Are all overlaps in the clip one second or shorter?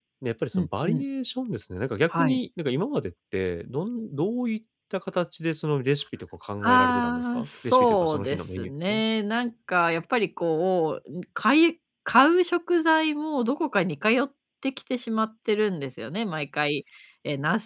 No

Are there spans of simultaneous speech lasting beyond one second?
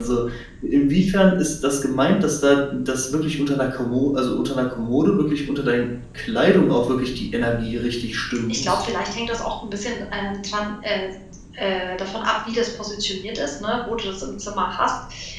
No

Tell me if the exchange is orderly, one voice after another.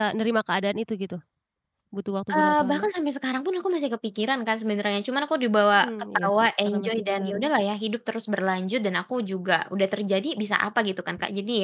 No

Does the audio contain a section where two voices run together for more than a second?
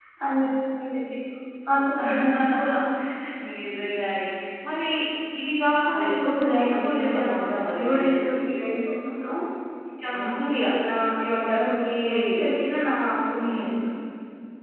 Yes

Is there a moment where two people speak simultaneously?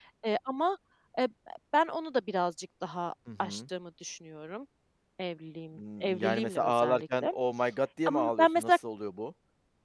Yes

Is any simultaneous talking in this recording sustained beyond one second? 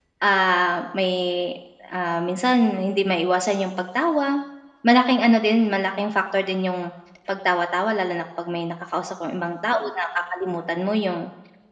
No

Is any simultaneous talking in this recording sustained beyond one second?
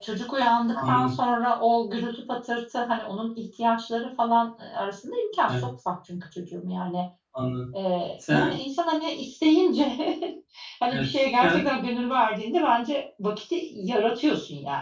No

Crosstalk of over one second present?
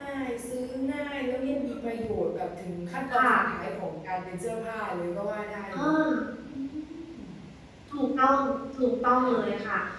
No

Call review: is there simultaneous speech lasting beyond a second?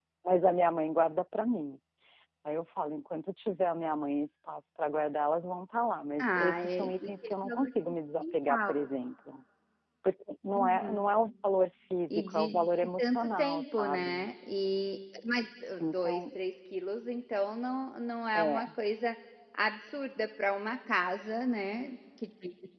Yes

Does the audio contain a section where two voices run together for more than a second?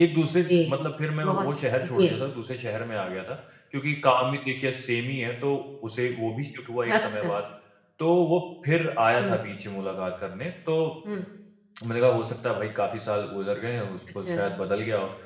No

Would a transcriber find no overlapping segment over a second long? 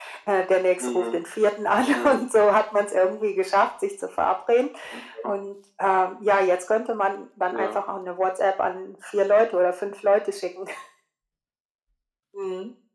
Yes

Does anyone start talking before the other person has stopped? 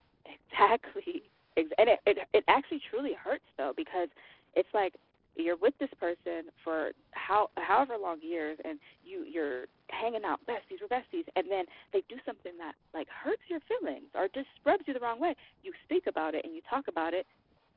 No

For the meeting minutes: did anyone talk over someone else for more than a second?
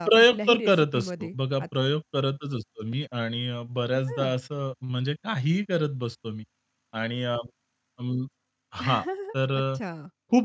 Yes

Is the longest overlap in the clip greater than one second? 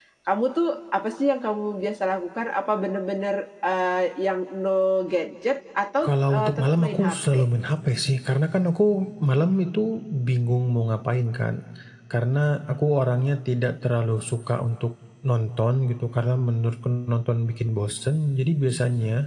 Yes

